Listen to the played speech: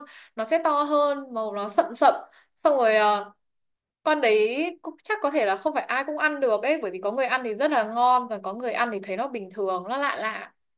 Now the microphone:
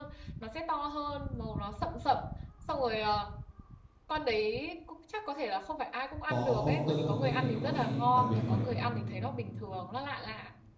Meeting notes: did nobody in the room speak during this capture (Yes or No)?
No